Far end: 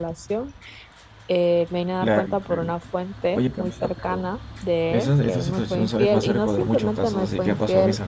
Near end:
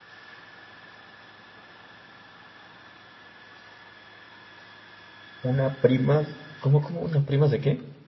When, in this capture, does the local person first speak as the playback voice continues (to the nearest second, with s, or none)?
5 s